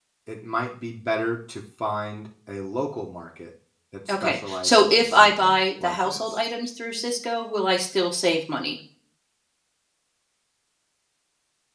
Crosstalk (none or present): present